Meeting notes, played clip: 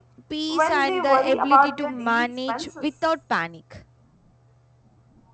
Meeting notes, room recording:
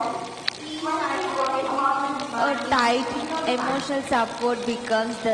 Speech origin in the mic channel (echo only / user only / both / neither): both